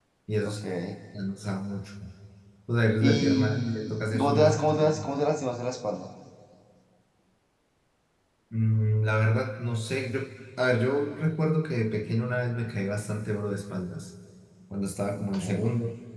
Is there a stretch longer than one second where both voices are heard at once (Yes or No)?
Yes